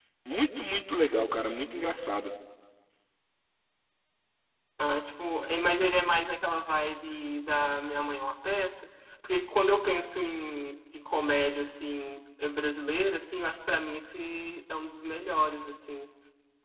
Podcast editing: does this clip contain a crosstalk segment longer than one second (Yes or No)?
No